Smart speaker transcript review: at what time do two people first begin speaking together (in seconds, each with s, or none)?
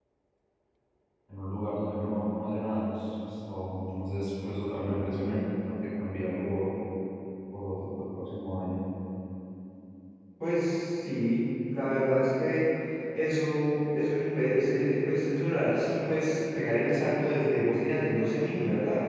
none